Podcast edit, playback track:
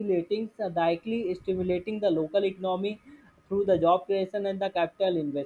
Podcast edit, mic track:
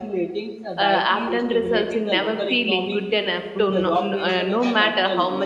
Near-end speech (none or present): present